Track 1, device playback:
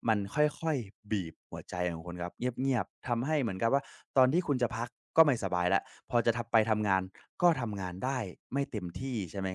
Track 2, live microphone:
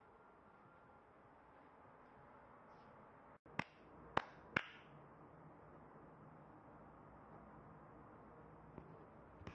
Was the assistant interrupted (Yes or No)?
No